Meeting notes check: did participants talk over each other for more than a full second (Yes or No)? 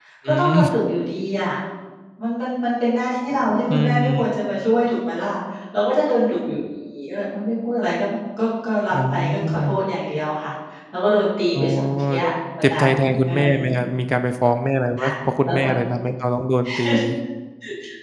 Yes